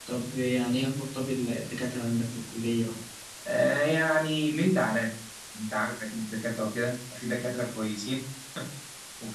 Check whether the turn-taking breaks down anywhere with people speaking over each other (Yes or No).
No